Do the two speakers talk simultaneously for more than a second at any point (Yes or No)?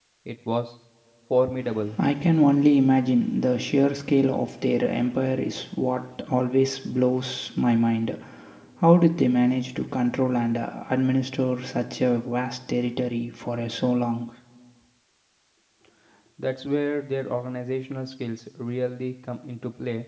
No